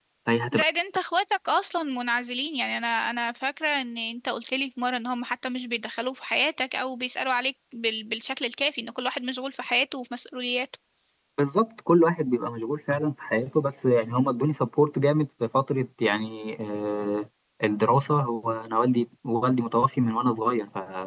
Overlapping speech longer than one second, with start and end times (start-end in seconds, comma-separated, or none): none